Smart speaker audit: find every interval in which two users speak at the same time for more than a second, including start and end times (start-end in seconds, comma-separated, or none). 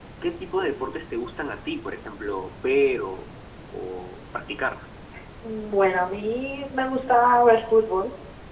none